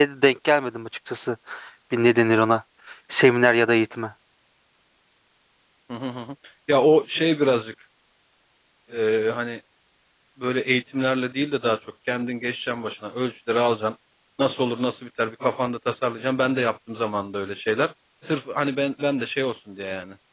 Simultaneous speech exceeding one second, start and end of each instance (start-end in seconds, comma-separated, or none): none